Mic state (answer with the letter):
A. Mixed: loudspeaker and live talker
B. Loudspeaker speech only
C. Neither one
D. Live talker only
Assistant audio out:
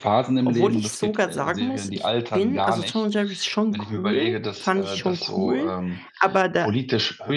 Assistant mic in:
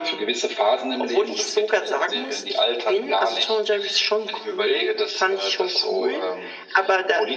B